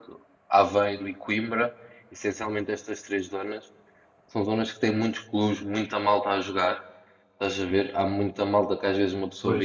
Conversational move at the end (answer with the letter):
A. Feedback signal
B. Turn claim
A